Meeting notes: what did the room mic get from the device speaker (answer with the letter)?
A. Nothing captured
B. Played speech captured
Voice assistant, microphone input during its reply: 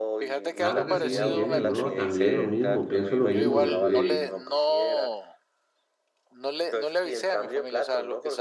B